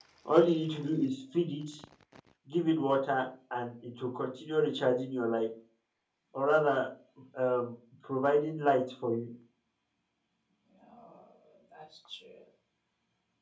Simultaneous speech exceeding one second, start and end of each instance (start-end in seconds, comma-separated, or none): none